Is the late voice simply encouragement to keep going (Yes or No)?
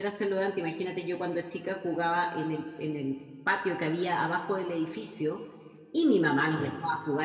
Yes